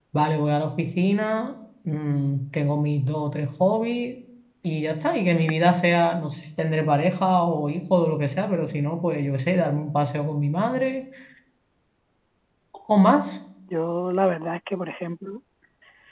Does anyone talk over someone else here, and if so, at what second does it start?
none

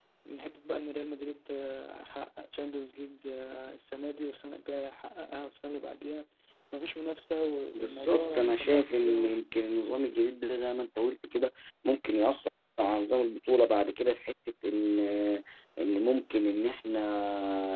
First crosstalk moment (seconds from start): 7.7 s

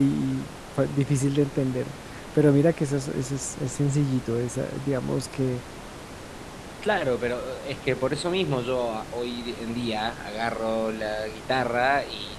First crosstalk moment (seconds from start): none

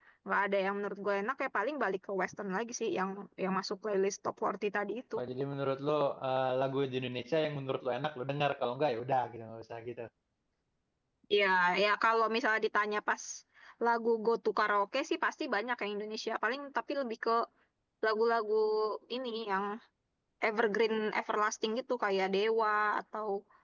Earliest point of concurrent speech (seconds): none

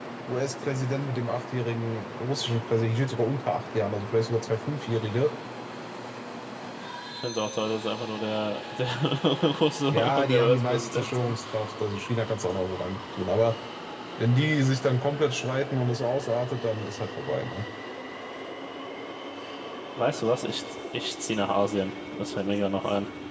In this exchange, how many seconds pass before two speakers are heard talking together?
9.9 s

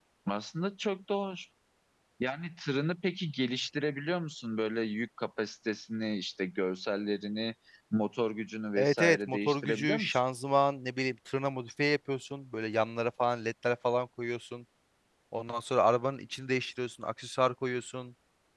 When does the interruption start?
8.8 s

